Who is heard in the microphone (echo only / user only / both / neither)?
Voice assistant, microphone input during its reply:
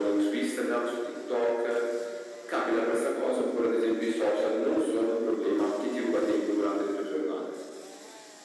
echo only